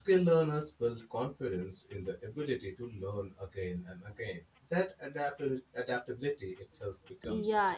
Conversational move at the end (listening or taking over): taking over